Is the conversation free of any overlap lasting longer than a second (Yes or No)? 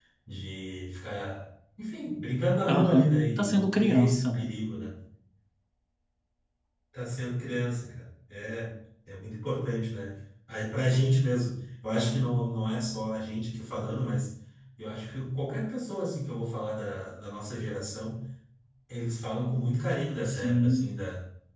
No